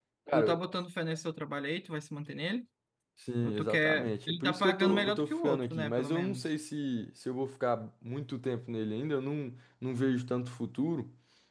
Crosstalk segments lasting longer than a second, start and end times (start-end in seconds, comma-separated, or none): 3.4-6.5